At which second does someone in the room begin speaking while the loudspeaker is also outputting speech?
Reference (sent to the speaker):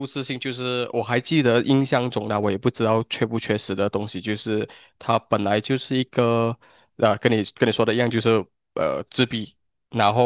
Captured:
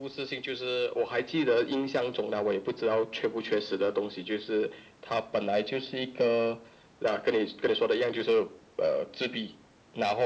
none

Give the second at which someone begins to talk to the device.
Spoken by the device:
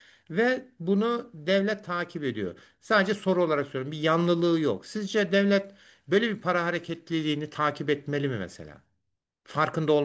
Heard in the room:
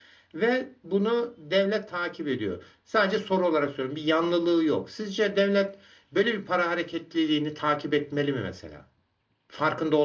none

